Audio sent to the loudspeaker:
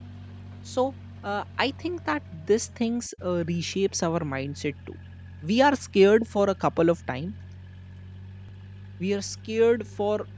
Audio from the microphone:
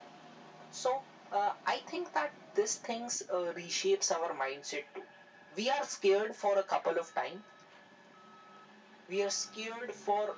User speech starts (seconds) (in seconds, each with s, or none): none